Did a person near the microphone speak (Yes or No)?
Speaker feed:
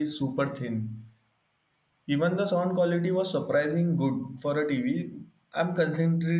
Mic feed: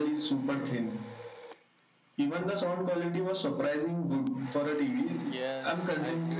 Yes